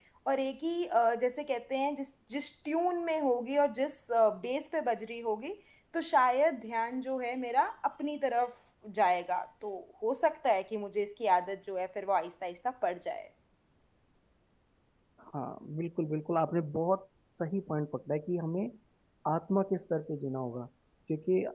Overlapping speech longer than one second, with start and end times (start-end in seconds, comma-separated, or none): none